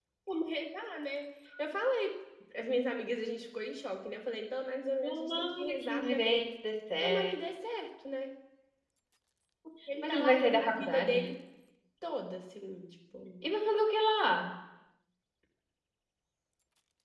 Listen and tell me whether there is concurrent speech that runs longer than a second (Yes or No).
Yes